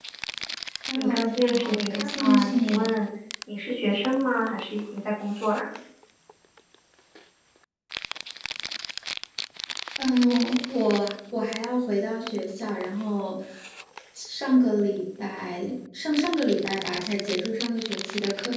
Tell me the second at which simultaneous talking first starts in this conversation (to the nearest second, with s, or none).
1 s